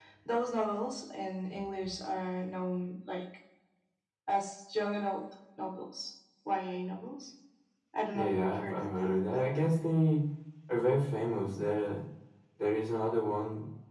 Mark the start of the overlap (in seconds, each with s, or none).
8.1 s